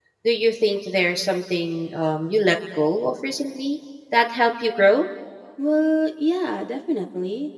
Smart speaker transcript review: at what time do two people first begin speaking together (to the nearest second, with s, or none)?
none